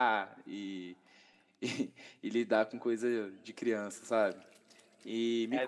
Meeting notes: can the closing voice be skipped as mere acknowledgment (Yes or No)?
Yes